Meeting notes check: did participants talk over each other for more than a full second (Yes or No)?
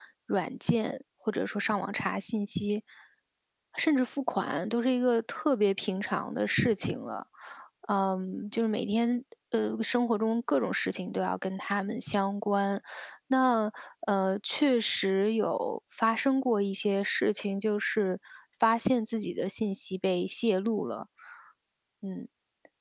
No